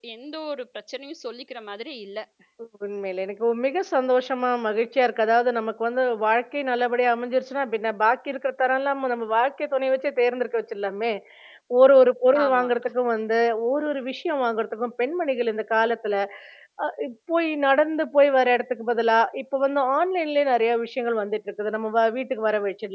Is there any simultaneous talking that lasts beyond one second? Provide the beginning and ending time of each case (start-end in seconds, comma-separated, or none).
none